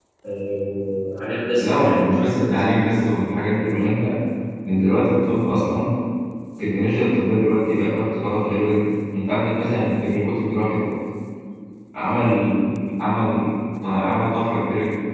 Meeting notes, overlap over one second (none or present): present